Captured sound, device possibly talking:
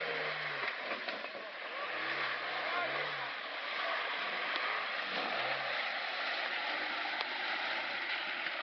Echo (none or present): none